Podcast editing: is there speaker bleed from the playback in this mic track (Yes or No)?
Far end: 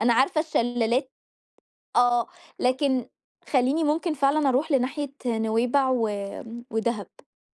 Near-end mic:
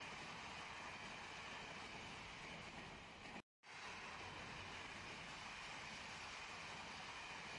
No